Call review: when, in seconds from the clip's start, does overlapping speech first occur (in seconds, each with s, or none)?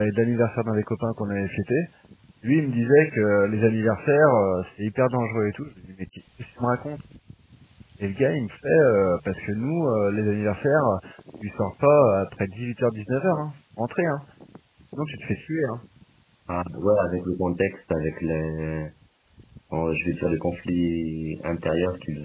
none